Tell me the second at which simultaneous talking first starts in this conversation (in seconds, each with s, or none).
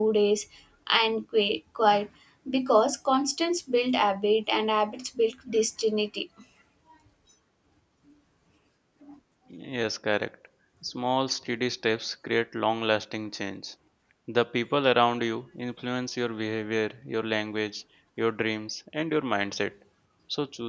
none